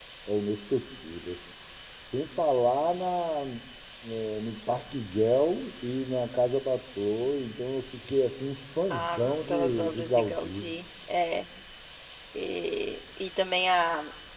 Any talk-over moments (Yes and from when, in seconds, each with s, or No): Yes, from 8.9 s